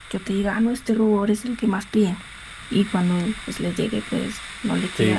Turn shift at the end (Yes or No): Yes